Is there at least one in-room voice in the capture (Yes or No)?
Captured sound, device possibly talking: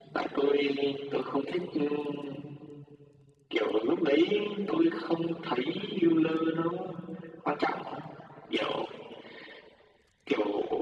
No